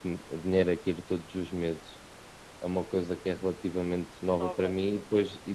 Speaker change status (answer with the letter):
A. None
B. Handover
A